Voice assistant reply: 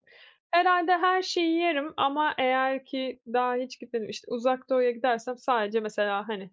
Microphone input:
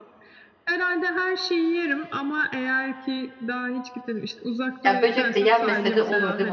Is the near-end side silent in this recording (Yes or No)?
No